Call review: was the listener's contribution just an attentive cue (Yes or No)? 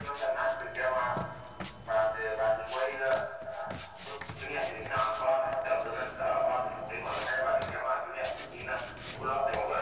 No